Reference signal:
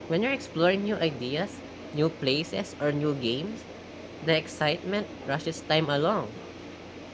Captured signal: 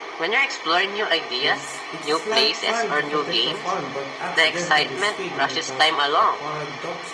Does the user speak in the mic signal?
Yes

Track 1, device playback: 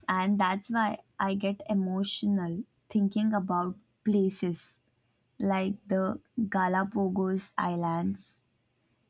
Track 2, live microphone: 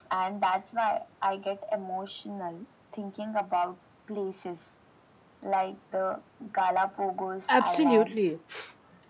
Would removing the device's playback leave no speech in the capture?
No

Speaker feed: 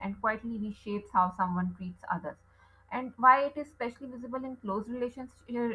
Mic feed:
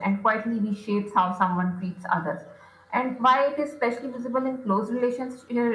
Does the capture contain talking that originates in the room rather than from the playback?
No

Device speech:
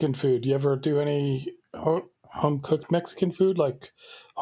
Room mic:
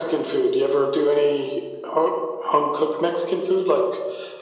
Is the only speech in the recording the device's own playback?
Yes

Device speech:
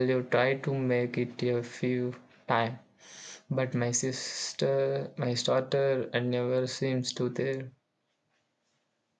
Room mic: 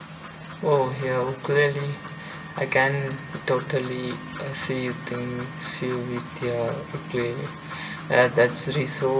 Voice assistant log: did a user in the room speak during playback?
Yes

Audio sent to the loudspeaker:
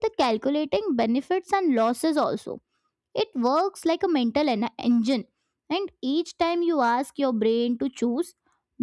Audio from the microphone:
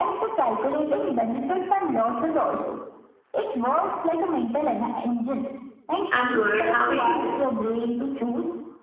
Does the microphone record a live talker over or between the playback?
Yes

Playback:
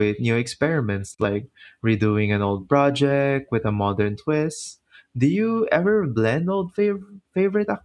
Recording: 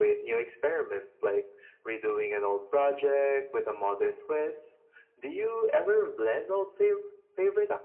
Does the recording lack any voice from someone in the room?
Yes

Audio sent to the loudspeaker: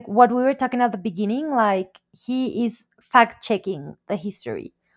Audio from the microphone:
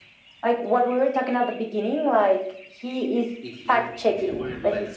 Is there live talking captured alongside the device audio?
Yes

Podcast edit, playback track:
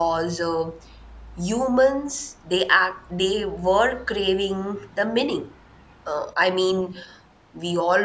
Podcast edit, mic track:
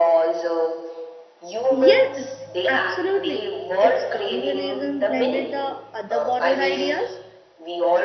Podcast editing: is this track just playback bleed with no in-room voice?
No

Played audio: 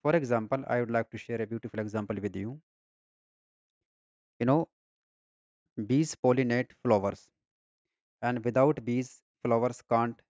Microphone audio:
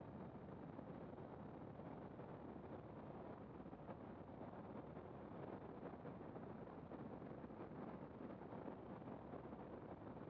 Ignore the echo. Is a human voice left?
No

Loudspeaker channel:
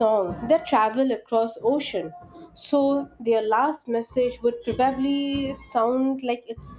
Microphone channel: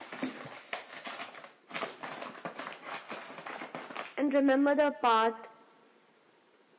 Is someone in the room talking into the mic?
Yes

